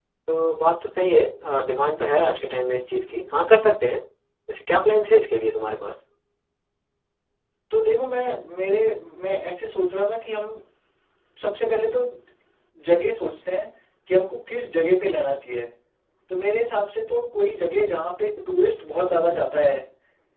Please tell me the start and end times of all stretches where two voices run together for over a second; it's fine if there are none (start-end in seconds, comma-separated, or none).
none